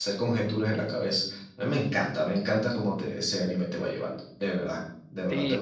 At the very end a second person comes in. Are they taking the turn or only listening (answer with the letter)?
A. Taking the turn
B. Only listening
A